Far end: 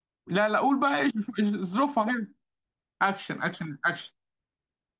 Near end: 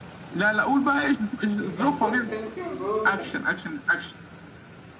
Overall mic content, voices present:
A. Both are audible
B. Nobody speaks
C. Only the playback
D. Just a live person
A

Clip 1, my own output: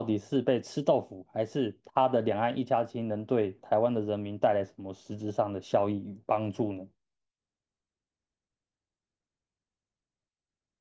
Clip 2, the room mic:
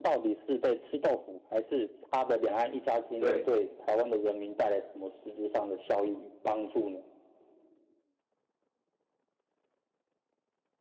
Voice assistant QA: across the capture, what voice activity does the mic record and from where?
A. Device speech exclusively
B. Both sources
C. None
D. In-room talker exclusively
B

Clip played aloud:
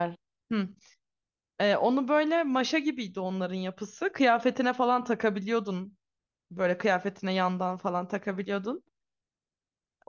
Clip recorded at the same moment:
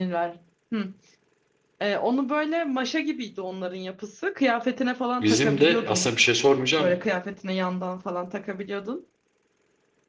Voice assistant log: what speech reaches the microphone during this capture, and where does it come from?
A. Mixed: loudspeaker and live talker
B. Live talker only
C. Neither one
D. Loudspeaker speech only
A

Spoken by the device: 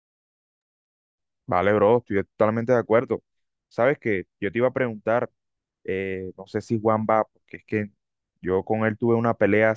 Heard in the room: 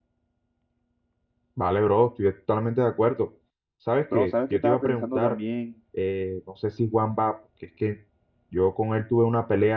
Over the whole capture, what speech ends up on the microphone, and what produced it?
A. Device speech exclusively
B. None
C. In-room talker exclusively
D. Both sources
D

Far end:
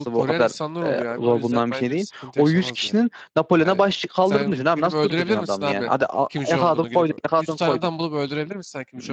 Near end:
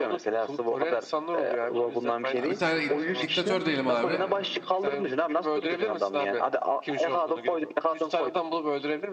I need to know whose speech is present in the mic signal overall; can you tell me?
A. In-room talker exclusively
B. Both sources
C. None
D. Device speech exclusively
B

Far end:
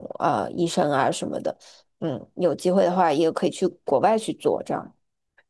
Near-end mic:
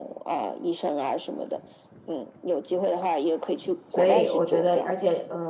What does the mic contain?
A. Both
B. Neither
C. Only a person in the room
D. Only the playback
A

